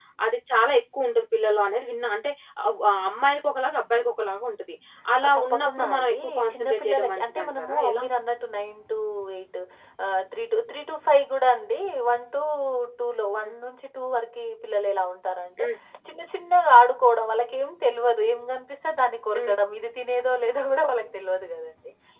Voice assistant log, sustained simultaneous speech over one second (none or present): present